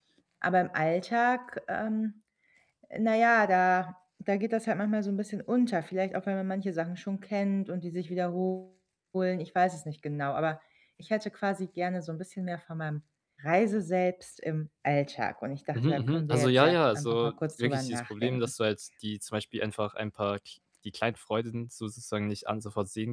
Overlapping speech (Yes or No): Yes